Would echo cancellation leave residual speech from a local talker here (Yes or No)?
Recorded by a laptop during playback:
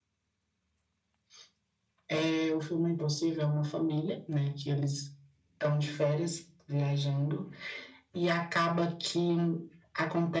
No